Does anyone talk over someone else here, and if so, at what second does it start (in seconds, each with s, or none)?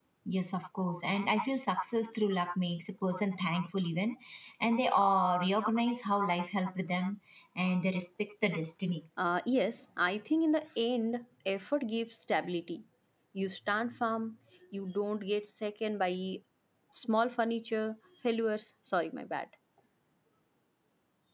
none